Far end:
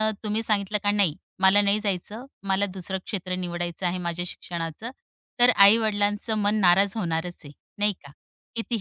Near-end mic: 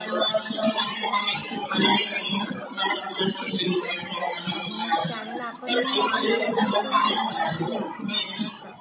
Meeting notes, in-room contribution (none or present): present